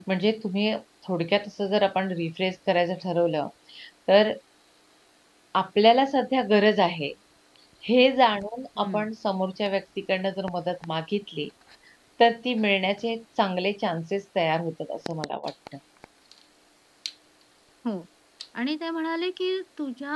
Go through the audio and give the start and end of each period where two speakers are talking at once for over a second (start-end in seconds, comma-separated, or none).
none